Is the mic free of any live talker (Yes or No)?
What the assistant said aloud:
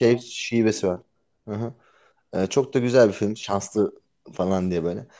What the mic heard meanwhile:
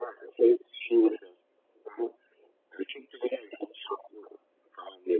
Yes